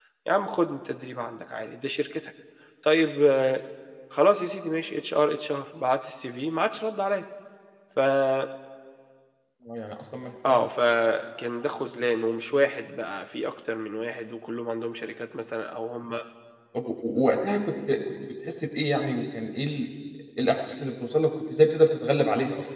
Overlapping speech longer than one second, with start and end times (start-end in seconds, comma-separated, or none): none